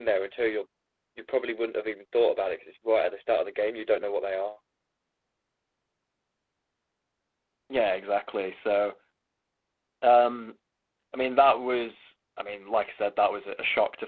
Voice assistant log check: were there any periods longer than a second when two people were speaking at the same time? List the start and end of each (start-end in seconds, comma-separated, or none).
none